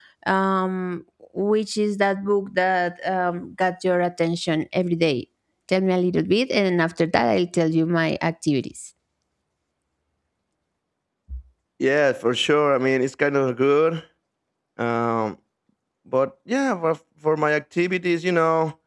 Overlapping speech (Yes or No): No